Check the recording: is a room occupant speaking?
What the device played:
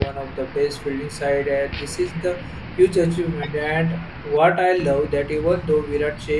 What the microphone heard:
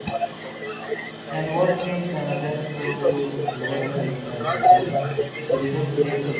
Yes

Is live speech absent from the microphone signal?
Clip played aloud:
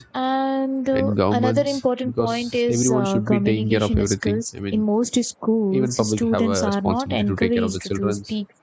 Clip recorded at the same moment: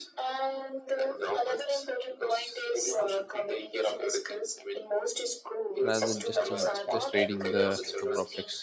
No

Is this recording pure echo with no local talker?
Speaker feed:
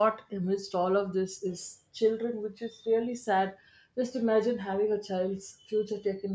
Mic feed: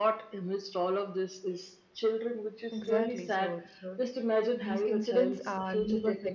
No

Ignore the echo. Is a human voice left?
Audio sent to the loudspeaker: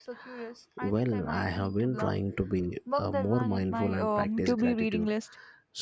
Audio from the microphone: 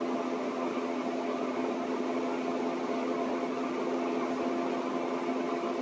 No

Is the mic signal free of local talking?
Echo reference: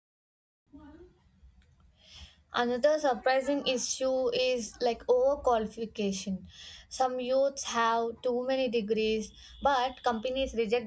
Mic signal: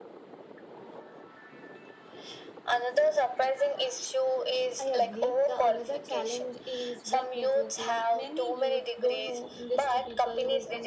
No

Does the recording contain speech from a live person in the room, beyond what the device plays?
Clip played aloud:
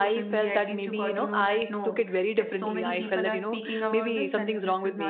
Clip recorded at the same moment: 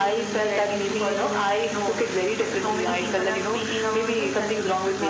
No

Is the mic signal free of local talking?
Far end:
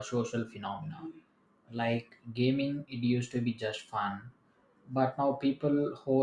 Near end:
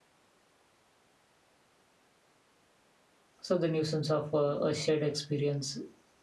No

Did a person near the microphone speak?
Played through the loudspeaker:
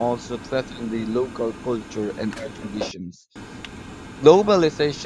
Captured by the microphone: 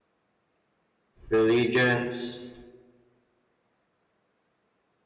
Yes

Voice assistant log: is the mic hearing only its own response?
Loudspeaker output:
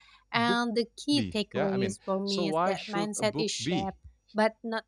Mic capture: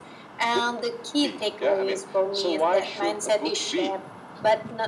Yes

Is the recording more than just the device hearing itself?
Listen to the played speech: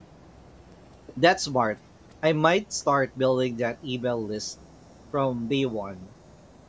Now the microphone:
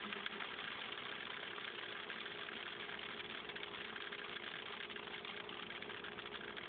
No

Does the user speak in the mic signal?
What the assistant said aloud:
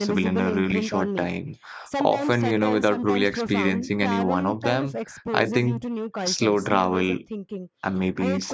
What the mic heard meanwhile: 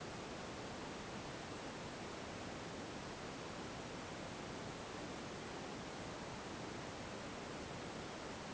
No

